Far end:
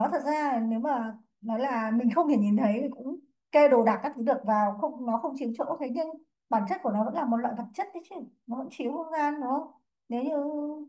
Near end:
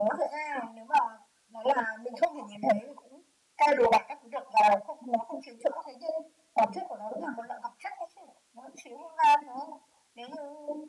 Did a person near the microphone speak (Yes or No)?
No